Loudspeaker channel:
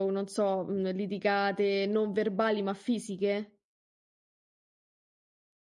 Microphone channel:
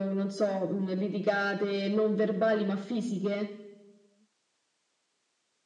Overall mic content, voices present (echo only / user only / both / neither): echo only